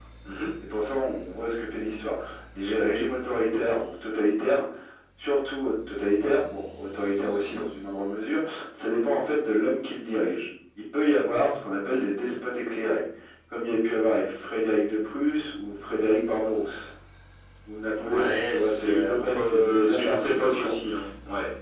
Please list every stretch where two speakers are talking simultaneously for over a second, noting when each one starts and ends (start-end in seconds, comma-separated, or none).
18.0-20.7